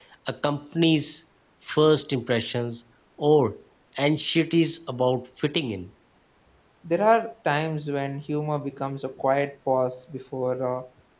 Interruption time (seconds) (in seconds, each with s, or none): none